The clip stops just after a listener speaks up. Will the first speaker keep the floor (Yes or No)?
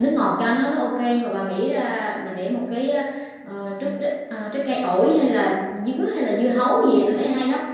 No